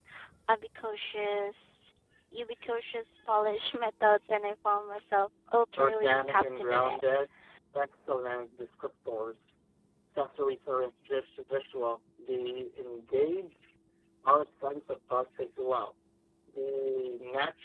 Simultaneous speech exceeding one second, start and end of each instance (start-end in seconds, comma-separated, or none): 5.8-7.0